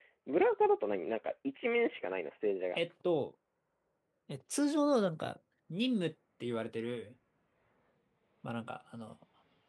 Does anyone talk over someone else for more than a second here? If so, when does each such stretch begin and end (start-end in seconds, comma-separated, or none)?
none